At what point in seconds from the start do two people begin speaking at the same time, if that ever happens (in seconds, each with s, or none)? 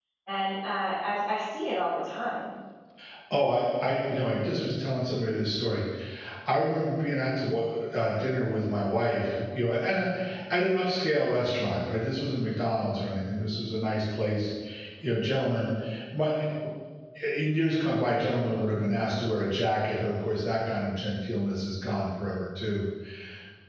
none